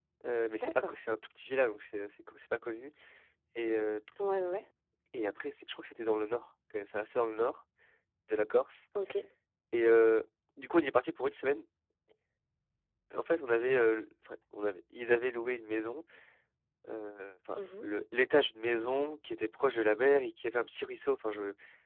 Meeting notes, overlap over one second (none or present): none